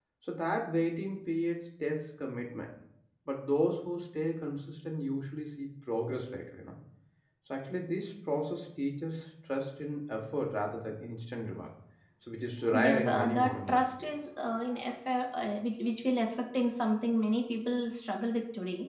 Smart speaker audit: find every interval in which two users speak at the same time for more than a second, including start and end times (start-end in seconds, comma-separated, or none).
12.7-14.1